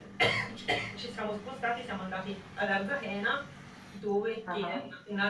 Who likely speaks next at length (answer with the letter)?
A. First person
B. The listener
A